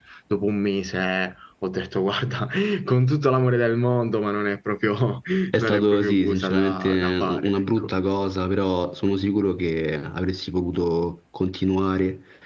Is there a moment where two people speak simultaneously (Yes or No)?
Yes